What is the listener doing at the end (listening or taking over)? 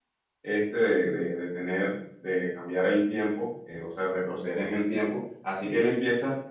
listening